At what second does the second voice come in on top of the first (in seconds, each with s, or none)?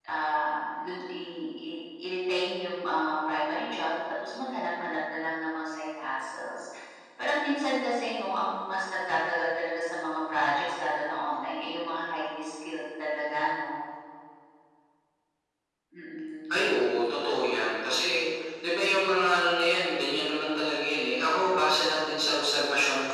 none